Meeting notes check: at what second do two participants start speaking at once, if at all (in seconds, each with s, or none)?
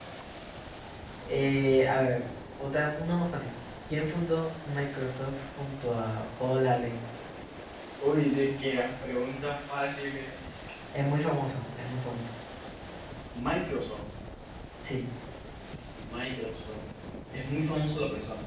none